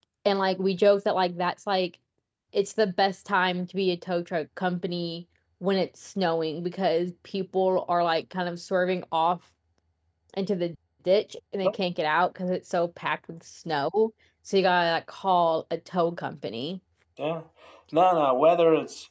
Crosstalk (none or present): none